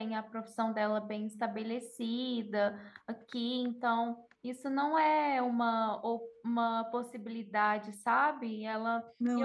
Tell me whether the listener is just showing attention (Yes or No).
Yes